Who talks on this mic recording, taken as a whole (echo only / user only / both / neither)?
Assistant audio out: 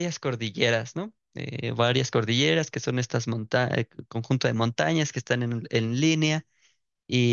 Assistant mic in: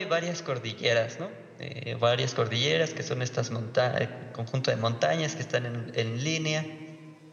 echo only